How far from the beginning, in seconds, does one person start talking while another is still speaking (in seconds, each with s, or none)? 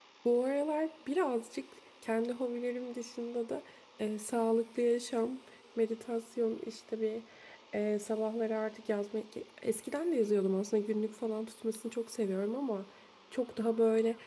none